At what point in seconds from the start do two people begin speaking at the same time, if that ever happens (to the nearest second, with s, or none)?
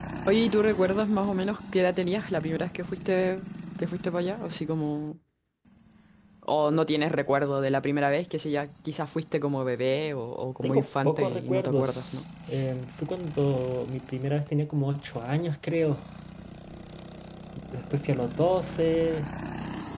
11 s